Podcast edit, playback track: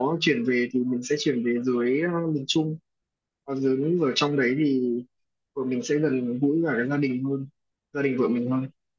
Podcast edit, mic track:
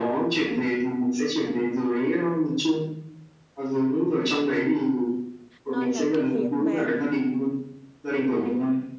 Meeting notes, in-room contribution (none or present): present